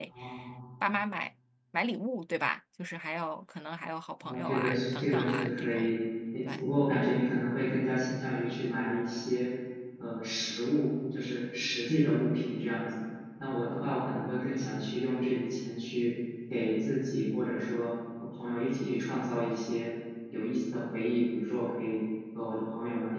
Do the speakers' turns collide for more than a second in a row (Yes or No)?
Yes